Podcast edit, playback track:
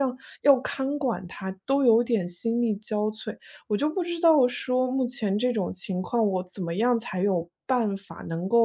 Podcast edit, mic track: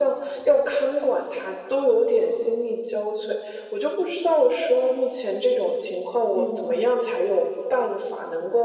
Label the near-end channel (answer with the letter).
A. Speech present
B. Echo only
A